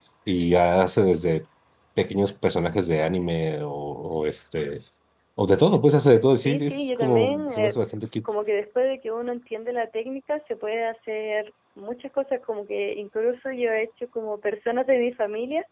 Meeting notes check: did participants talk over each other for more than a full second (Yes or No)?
Yes